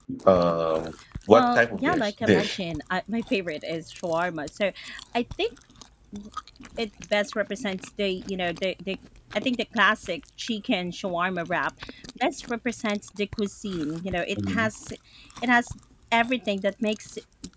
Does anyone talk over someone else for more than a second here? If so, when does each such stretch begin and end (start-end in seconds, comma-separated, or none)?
1.3-2.6